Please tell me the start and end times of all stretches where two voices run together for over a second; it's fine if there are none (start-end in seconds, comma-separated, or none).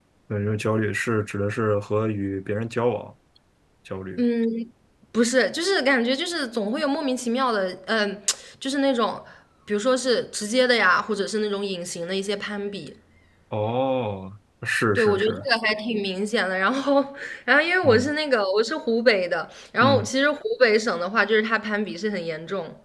none